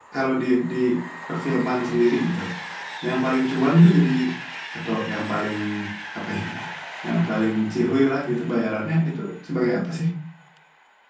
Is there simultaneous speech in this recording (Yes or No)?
No